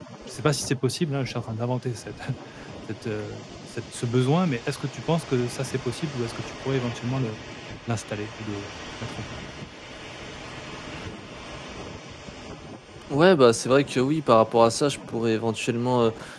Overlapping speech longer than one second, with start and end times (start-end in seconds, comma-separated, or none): none